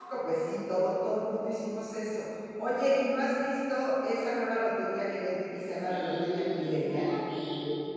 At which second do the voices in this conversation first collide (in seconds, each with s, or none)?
5.8 s